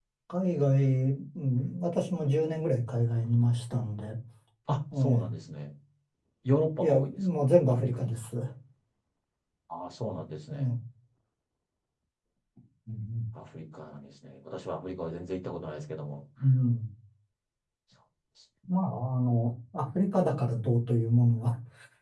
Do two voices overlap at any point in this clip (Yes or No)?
Yes